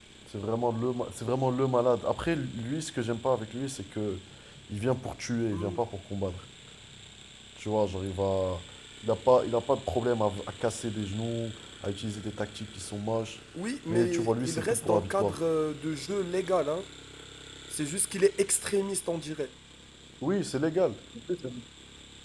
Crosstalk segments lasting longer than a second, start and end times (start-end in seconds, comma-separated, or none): 13.9-15.4